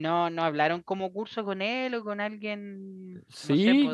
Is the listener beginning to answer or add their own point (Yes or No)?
Yes